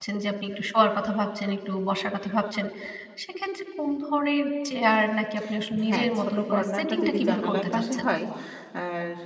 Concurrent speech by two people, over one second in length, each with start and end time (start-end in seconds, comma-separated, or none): 5.8-8.1